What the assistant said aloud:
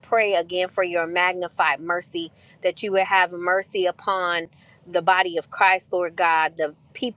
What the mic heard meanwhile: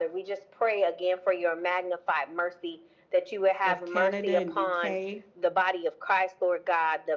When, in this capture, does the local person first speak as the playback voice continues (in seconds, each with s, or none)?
3.6 s